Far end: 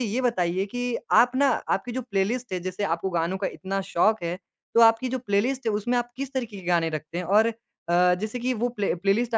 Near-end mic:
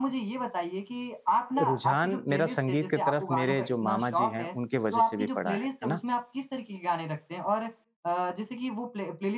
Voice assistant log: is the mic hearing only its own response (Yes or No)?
No